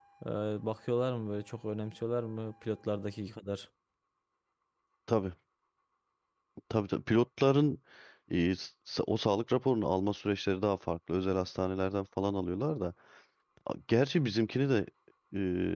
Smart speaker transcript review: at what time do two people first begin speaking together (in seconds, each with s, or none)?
none